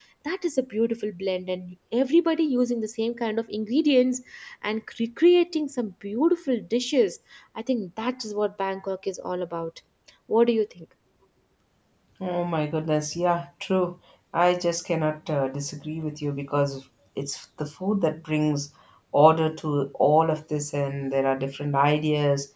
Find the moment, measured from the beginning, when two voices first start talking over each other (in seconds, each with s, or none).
none